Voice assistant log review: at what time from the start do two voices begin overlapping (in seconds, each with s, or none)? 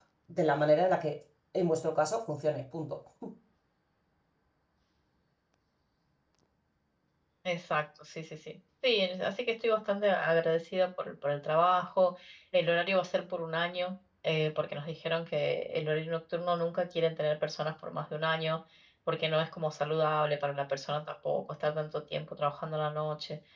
none